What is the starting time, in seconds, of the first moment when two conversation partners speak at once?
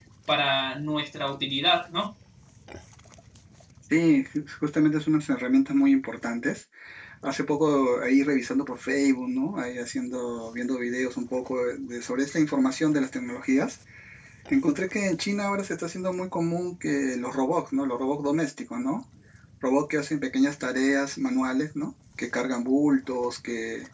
none

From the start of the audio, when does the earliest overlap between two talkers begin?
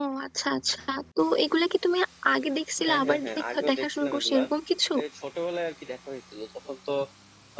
2.9 s

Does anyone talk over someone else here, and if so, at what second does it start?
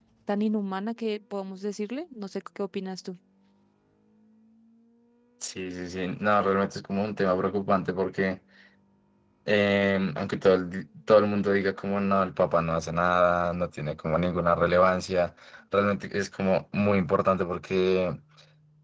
none

